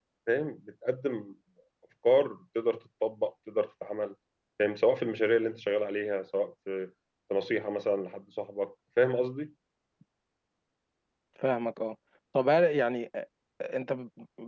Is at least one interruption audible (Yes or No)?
No